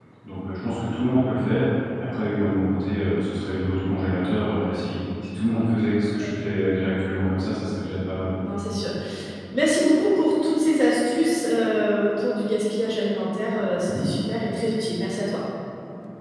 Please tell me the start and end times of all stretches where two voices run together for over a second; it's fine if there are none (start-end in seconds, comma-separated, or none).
none